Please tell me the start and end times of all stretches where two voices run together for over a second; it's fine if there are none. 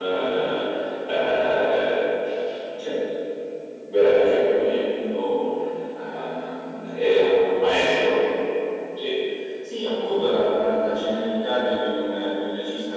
6.9-8.2

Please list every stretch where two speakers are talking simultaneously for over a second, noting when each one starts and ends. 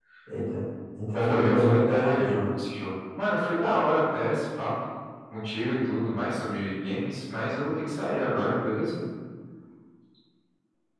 1.2-2.5

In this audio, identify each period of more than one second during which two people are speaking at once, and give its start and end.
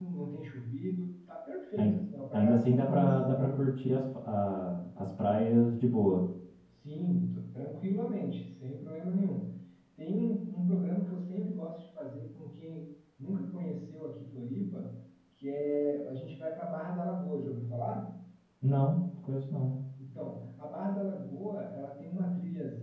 2.3-3.7

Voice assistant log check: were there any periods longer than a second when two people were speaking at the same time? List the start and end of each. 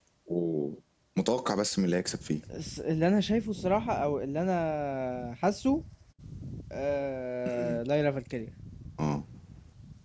none

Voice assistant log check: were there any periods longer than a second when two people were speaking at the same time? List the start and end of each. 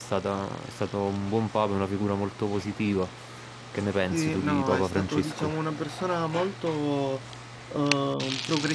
4.1-5.5

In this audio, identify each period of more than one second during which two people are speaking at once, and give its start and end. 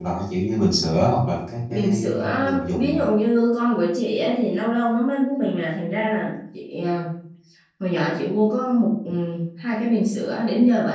1.7-3.0

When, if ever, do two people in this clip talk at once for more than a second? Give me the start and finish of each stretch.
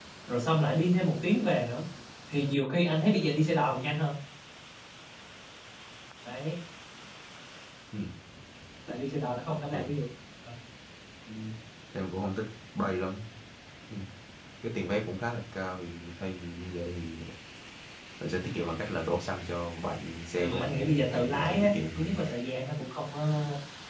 20.4-22.2

